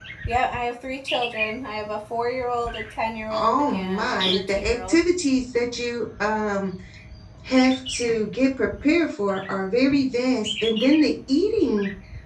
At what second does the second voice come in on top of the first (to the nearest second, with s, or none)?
3 s